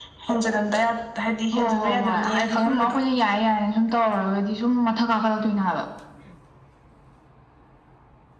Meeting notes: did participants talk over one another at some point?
Yes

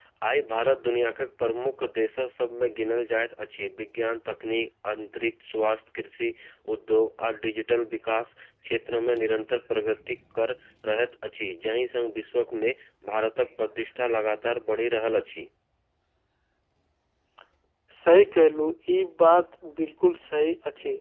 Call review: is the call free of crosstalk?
Yes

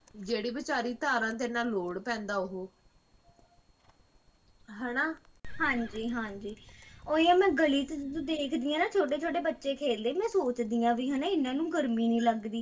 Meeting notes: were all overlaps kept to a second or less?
Yes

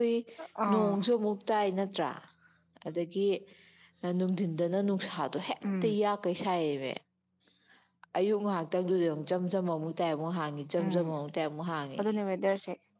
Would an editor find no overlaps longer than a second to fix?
Yes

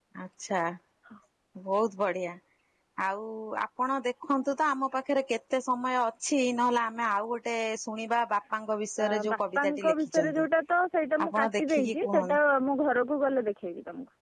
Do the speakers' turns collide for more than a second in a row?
Yes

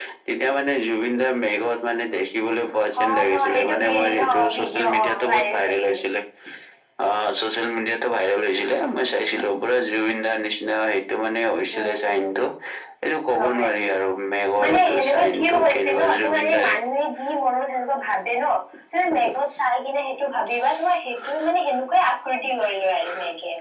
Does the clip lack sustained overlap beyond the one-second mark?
No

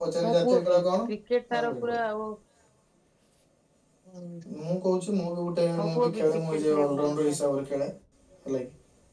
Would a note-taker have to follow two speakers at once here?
Yes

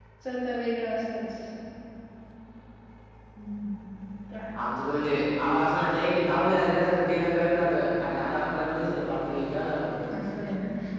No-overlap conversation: Yes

